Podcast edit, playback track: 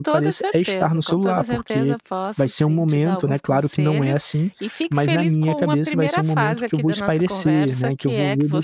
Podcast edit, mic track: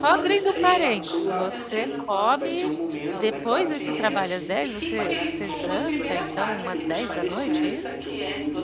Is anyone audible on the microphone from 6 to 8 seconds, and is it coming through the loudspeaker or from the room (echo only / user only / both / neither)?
both